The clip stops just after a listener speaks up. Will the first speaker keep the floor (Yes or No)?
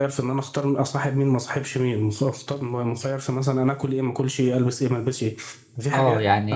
No